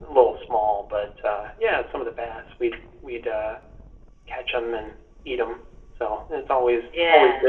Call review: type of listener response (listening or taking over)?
listening